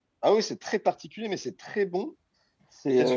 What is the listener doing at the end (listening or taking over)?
taking over